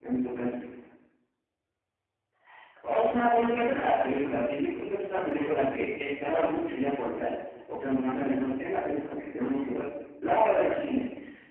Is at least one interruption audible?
No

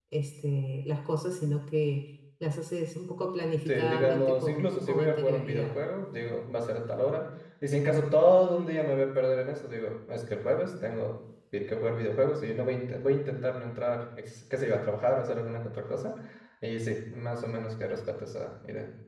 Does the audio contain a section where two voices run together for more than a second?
Yes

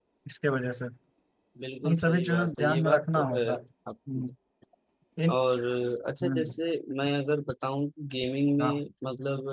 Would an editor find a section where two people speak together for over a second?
Yes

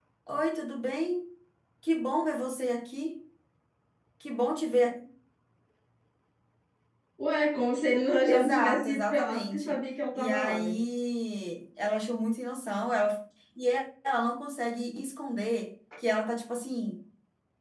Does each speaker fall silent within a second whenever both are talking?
No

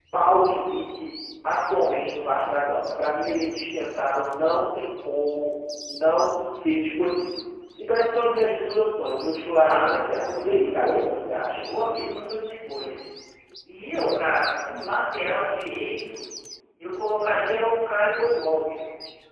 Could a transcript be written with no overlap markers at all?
No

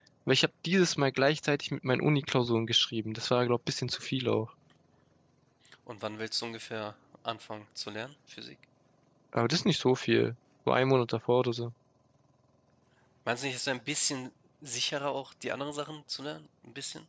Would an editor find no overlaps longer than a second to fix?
Yes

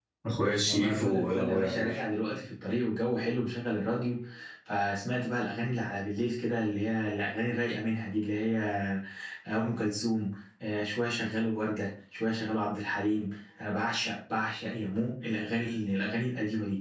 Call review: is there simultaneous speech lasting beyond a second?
Yes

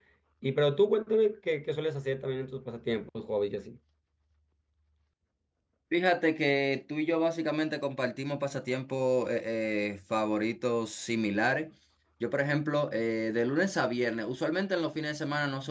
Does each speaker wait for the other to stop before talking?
Yes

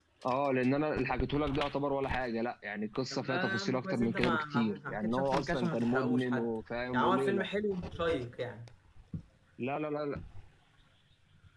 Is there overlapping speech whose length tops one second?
Yes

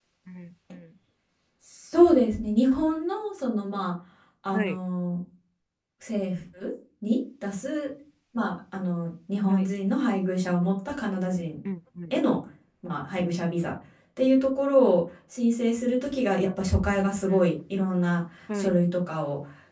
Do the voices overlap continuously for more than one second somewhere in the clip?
No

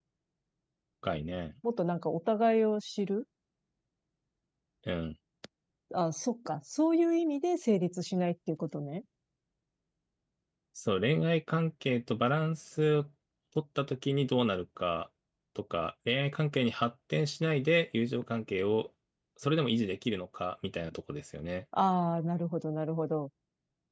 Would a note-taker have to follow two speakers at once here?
No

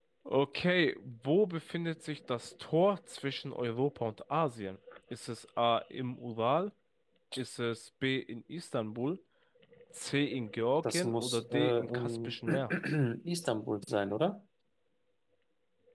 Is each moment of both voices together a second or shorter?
No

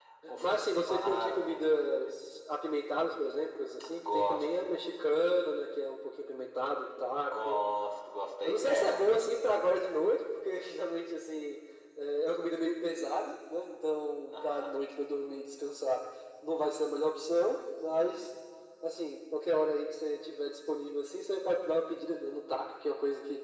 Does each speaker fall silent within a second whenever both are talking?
No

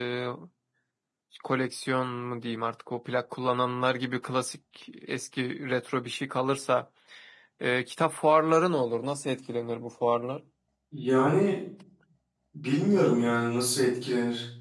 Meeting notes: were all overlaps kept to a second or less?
Yes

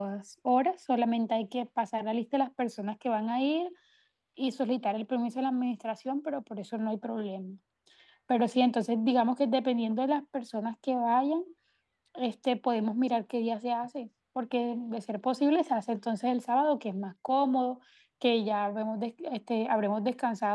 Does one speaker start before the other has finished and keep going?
No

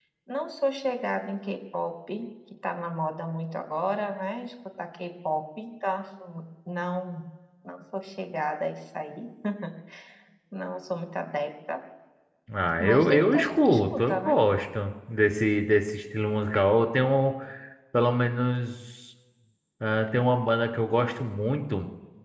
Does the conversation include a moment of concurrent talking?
Yes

